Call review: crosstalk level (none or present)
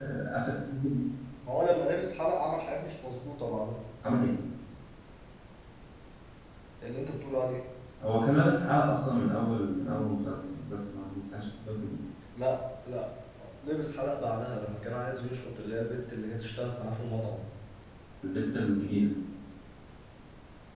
none